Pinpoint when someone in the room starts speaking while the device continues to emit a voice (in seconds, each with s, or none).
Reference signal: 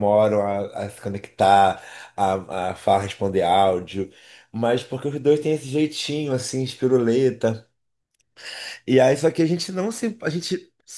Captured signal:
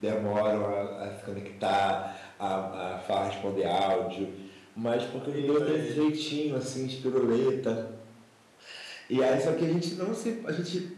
5.2 s